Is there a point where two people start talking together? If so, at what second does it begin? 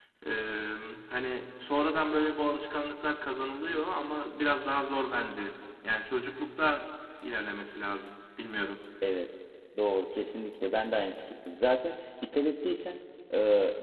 none

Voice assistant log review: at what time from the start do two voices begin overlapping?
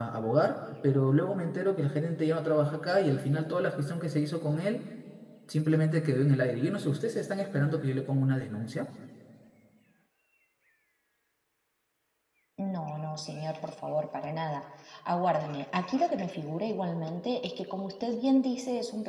none

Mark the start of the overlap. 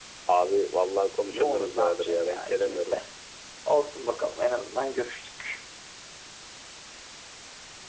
1.2 s

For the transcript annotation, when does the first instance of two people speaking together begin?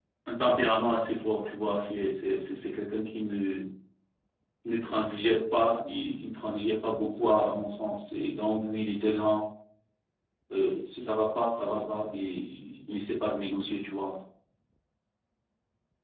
none

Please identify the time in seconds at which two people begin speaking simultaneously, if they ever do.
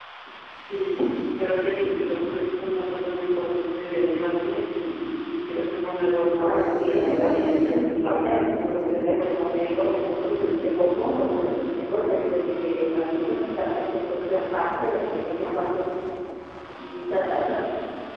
6.4 s

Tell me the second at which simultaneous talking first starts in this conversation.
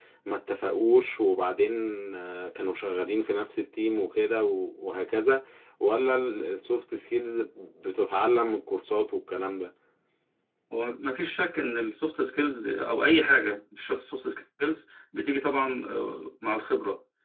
none

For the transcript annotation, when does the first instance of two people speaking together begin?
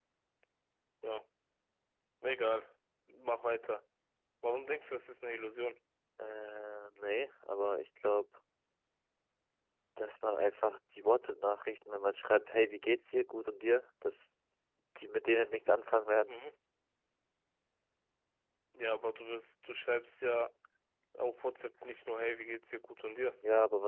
none

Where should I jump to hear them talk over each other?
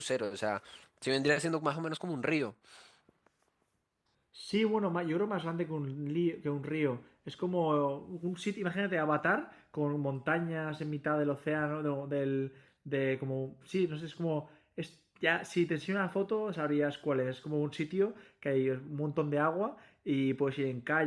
none

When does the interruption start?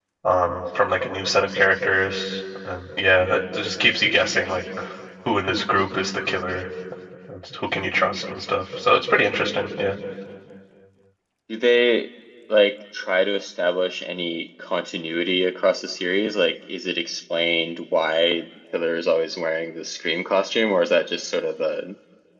none

